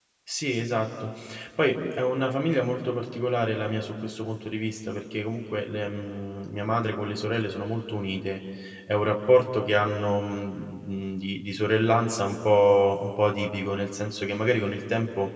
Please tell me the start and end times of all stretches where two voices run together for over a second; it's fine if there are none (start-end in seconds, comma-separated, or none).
none